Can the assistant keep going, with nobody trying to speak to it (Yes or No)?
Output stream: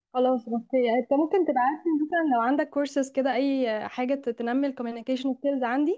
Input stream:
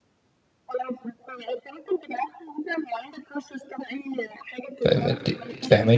No